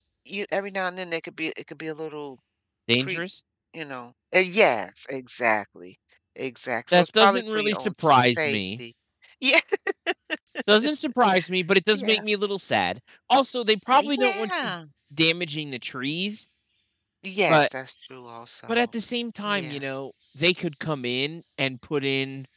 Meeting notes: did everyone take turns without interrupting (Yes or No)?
No